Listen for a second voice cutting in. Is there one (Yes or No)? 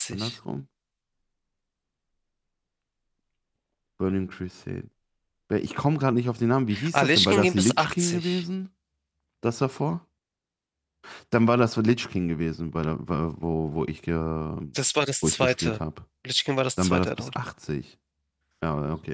Yes